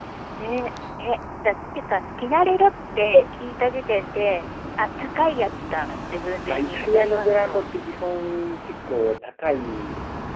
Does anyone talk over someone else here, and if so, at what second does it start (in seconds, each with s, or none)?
6.5 s